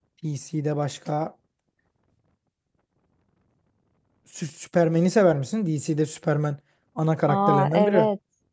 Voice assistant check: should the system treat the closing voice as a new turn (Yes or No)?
Yes